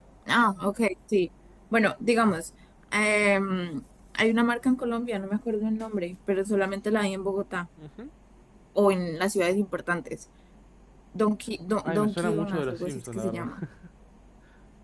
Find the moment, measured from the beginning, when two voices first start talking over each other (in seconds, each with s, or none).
11.8 s